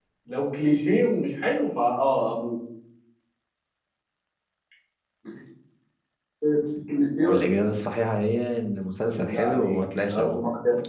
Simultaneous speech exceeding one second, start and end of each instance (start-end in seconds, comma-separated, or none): 9.1-10.4